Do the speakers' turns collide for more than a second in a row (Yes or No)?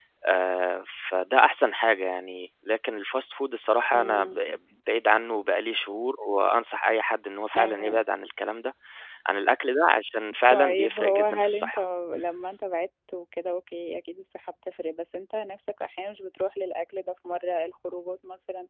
Yes